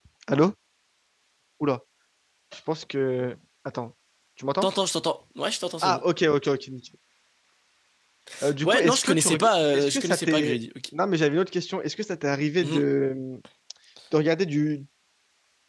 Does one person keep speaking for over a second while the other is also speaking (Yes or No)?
Yes